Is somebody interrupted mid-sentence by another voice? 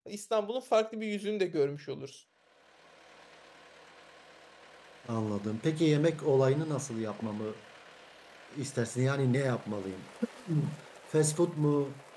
No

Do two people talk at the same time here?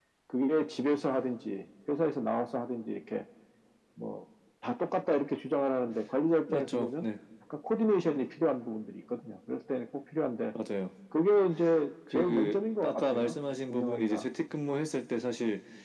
Yes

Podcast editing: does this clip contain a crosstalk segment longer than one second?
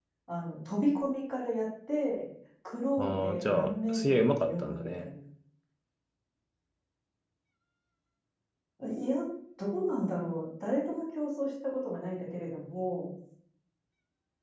Yes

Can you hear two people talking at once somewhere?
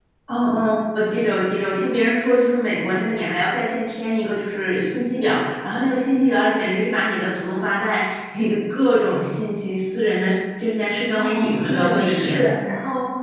Yes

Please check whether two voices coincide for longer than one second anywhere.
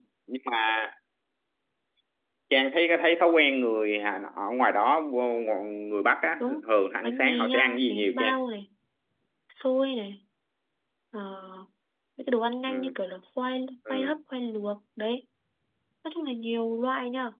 Yes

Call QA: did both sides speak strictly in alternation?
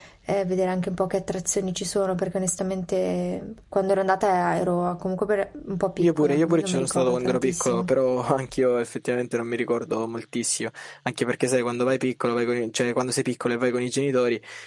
No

